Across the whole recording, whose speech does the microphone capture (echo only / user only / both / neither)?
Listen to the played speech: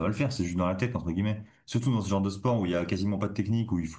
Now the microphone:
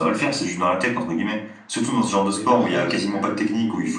both